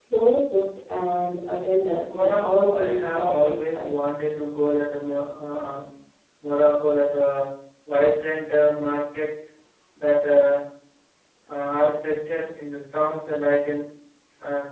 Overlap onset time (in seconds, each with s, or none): 2.1 s